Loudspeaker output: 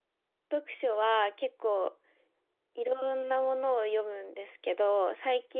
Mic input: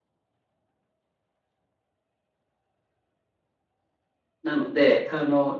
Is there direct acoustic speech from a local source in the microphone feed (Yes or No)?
Yes